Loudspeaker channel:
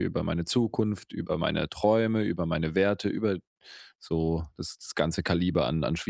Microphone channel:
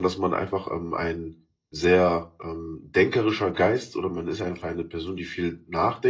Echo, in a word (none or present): none